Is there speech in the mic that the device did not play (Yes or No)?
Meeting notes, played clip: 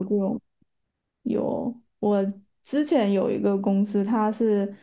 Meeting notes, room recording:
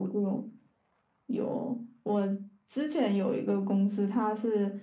No